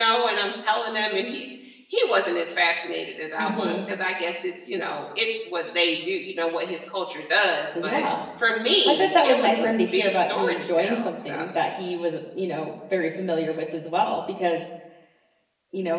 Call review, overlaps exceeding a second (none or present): present